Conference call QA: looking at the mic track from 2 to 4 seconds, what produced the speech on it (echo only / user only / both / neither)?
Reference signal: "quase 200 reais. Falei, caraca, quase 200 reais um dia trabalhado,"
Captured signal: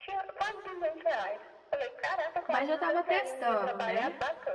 both